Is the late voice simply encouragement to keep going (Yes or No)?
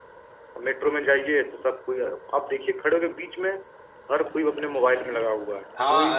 No